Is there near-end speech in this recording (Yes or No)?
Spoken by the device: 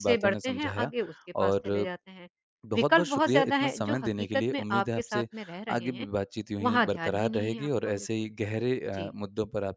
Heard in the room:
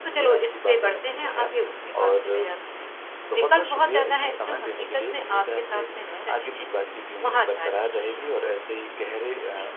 No